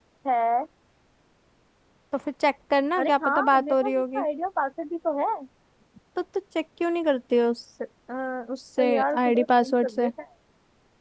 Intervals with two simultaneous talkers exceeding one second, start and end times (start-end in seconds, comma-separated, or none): 3.0-4.2, 8.8-10.1